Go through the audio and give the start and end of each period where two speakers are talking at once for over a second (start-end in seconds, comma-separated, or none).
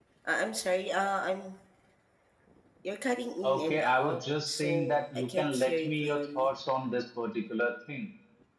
3.5-6.5